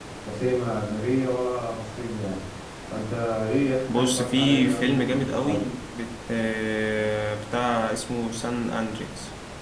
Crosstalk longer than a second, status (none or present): present